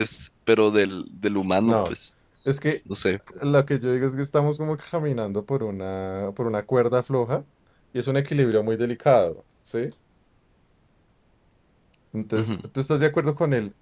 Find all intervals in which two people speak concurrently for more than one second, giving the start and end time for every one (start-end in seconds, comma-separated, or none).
none